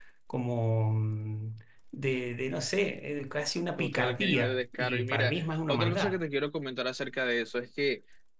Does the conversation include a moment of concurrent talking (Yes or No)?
Yes